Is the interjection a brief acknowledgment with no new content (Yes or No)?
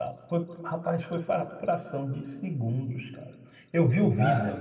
Yes